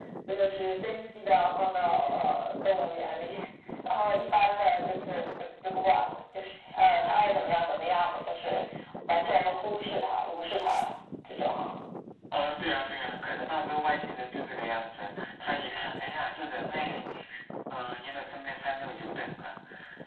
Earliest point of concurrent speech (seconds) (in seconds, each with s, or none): none